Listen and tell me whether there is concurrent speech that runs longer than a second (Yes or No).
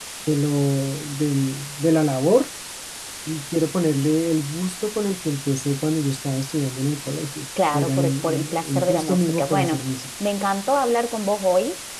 Yes